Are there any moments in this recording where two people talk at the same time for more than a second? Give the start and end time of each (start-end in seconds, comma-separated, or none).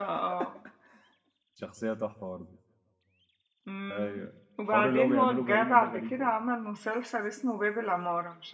4.7-6.2